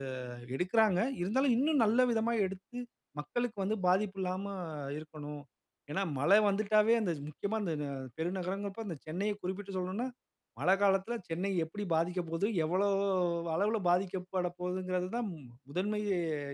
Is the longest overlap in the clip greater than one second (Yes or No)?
No